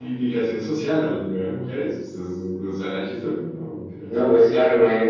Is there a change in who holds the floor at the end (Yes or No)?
Yes